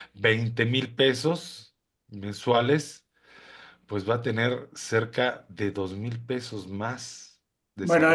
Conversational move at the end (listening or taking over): taking over